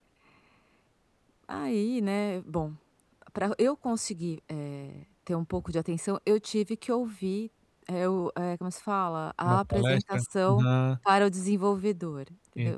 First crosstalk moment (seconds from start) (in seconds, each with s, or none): 9.4 s